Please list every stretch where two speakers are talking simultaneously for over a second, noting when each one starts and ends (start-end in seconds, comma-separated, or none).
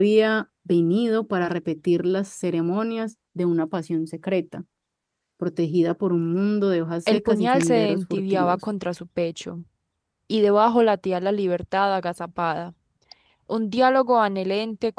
7.1-8.6